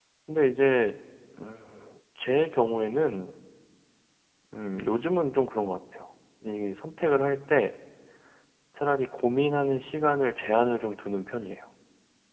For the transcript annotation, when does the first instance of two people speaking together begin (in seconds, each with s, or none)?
none